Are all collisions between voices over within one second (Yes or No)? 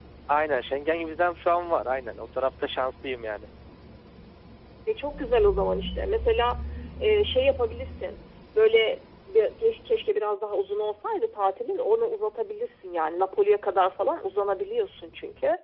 Yes